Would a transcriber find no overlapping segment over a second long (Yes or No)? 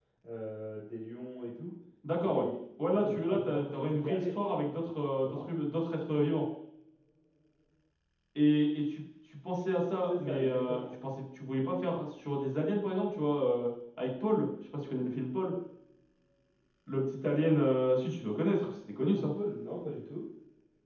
No